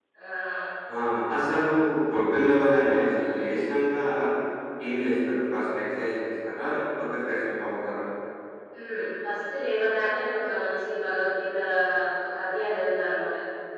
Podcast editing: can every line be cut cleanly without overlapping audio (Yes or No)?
Yes